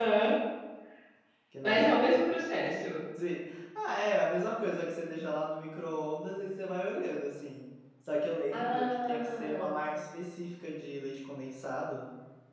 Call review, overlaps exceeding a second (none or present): present